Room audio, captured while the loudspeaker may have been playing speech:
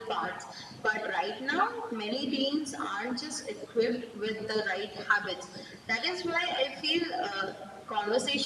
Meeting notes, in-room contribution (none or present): none